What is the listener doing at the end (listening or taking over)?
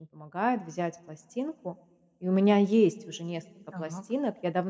listening